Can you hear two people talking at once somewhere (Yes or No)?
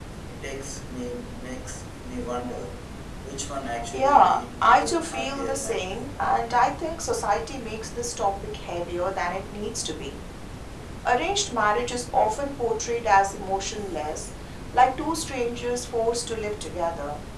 Yes